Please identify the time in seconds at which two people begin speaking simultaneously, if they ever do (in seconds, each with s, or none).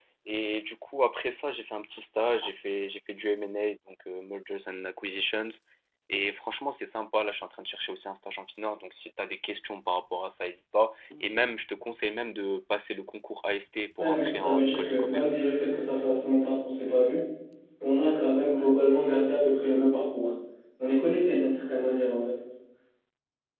14.0 s